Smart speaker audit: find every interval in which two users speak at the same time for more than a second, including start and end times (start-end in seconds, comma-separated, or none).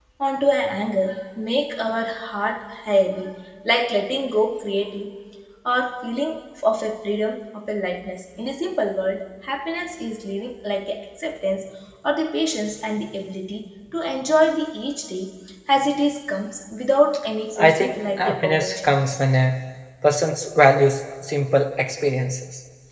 17.6-18.9